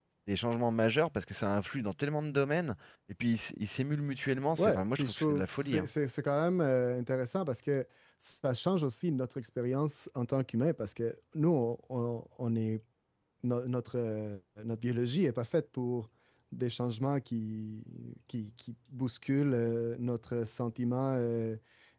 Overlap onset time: 4.5 s

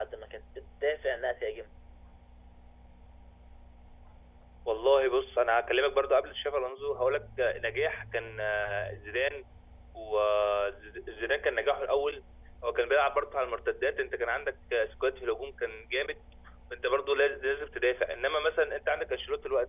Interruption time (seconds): none

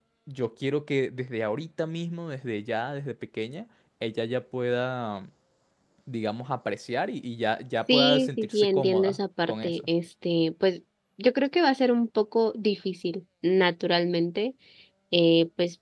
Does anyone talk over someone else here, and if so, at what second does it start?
7.9 s

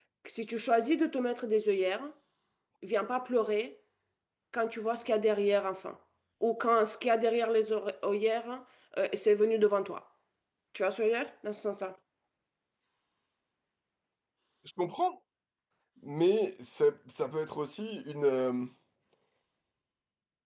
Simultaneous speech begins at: none

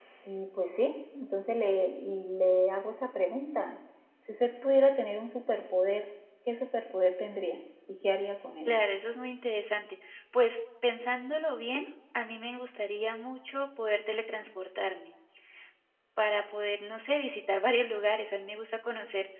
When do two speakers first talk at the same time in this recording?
none

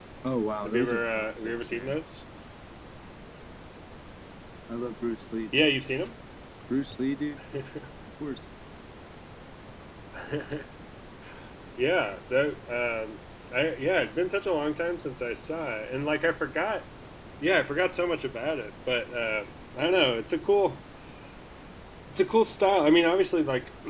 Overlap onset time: 0.6 s

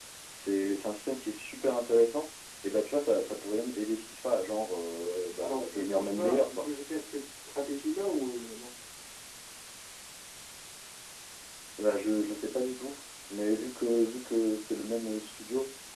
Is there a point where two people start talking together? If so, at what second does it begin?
5.4 s

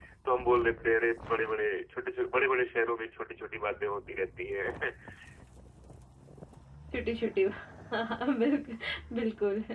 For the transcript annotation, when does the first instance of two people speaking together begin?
none

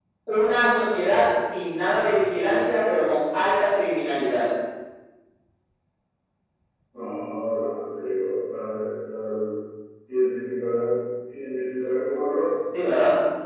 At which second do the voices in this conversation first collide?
none

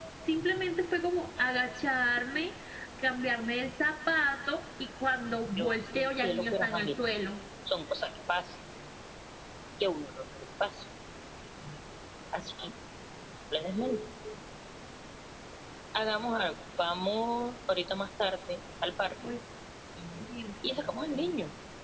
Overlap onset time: 5.6 s

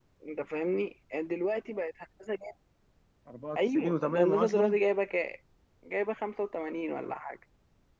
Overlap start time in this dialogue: 3.6 s

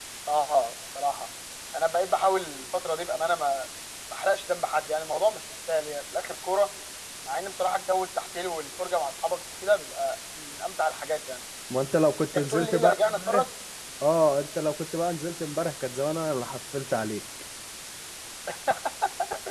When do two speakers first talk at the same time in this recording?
12.2 s

